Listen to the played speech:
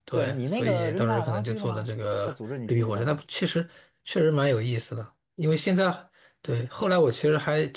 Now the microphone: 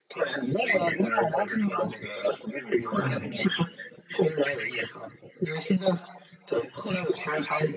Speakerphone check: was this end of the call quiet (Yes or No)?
No